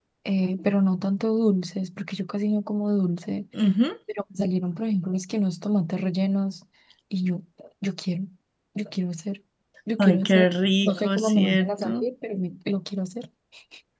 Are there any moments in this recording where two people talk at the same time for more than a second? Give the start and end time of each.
10.8-12.1

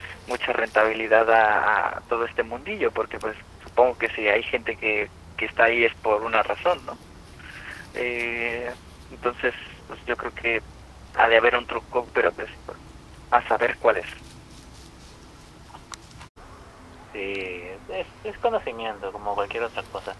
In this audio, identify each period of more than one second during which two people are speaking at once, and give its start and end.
none

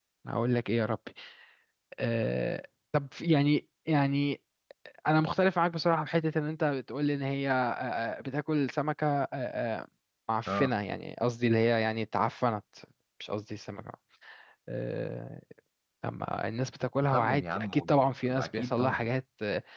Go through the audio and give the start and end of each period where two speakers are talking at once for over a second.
17.1-19.1

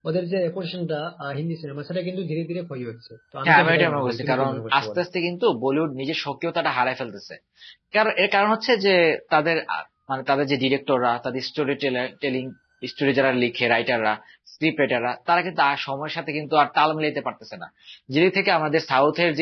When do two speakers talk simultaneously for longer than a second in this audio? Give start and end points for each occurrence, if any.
3.4-5.0

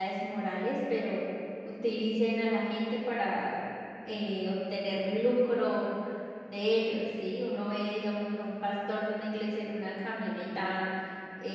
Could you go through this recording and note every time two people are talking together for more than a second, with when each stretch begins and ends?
none

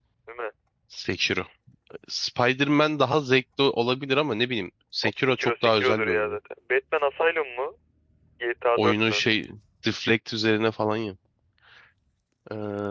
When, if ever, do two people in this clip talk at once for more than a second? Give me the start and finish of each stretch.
5.0-6.4

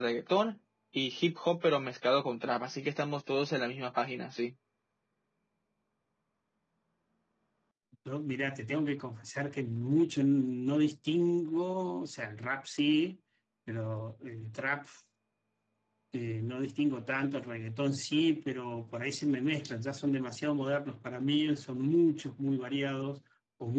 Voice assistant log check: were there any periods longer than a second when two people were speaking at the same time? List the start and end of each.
none

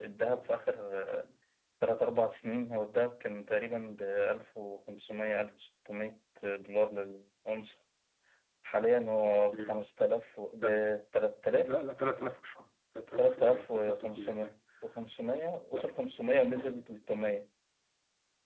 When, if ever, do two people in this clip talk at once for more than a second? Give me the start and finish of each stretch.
13.2-14.6

